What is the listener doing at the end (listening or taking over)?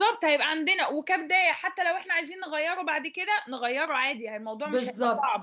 taking over